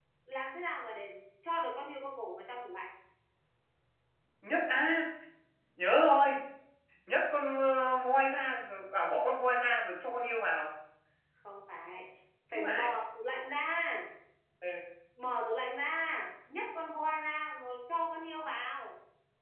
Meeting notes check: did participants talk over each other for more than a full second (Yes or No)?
No